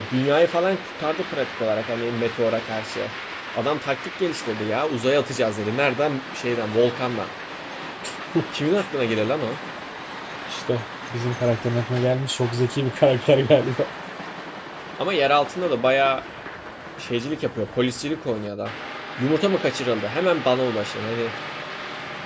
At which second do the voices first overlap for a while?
none

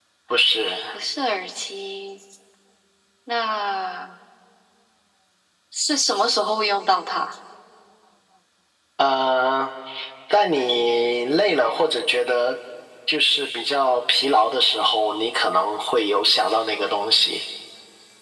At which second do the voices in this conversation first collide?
none

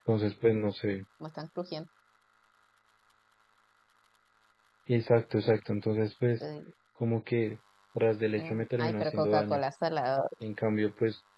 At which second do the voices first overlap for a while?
8.4 s

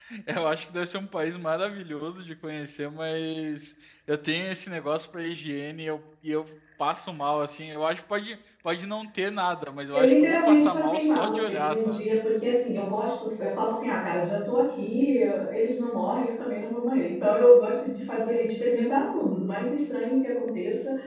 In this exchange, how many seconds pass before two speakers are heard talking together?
9.9 s

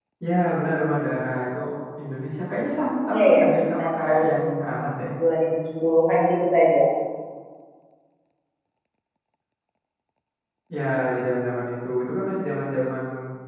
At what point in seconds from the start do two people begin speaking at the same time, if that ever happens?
3.1 s

